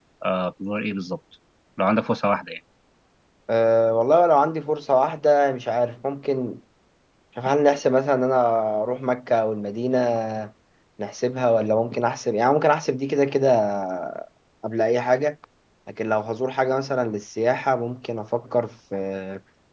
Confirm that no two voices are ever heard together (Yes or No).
Yes